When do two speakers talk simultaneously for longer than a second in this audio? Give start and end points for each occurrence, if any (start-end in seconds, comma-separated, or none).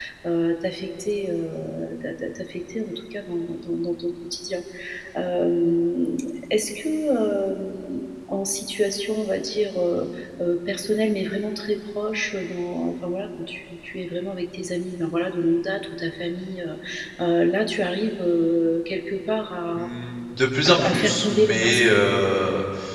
20.7-21.9